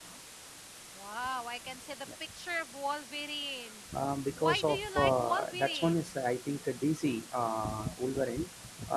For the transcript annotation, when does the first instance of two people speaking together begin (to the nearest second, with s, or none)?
4 s